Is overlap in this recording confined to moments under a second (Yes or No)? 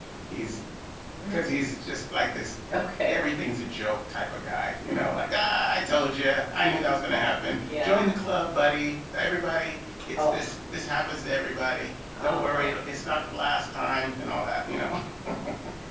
Yes